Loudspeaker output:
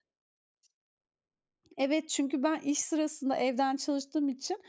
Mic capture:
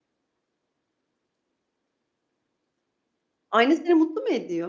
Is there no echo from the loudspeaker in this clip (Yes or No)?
Yes